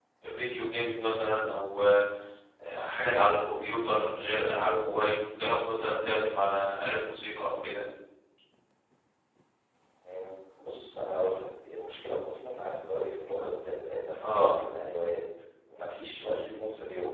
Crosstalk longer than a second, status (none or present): none